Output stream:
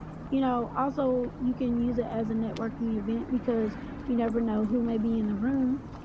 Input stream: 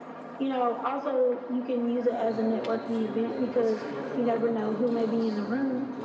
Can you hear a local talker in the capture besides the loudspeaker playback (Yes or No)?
Yes